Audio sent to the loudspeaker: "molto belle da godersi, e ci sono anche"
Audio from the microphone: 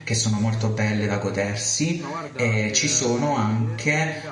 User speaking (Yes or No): Yes